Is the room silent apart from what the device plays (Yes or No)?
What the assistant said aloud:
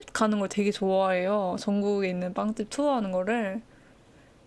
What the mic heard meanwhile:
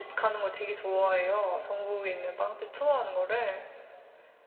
Yes